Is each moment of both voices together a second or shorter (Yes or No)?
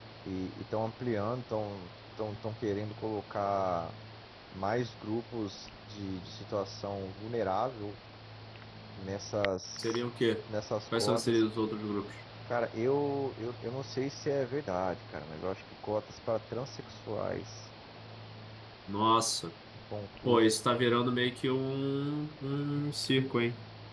Yes